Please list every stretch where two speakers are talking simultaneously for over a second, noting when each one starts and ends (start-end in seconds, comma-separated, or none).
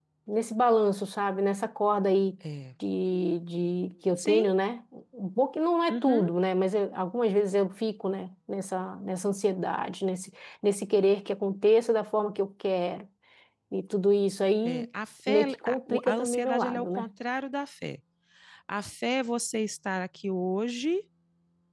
15.3-17.1